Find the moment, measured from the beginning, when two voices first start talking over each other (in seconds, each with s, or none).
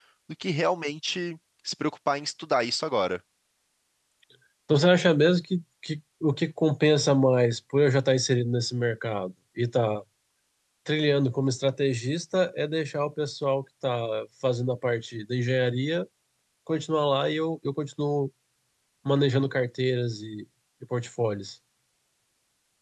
none